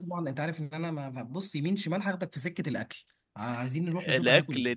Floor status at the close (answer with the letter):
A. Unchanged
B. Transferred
B